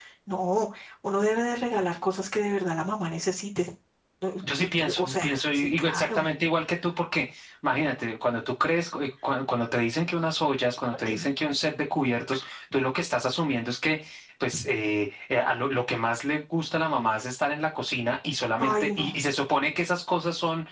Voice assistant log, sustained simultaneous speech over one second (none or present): present